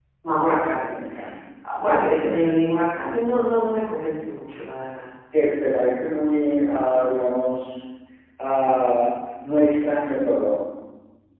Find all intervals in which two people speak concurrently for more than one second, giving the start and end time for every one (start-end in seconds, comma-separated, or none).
none